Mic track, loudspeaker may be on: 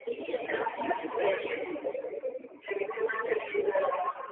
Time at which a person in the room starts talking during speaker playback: none

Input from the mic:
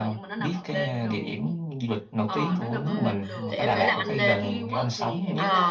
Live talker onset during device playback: 2.8 s

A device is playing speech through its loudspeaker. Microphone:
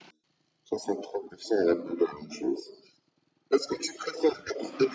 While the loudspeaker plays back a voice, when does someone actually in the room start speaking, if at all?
none

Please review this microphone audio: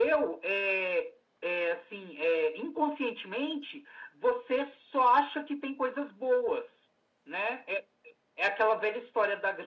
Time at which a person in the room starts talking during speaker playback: none

